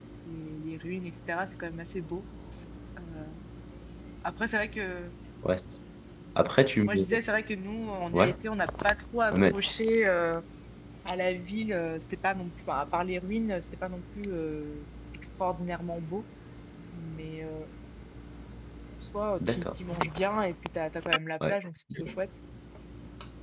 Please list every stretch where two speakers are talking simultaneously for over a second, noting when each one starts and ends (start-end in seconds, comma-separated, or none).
none